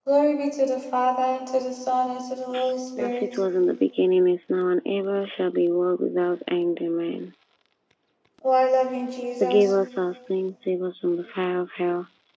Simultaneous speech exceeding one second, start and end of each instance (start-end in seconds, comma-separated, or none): none